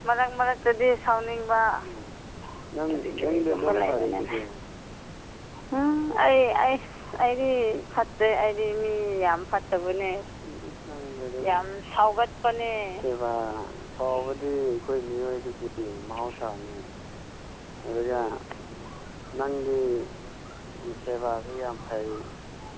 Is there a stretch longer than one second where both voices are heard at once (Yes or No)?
Yes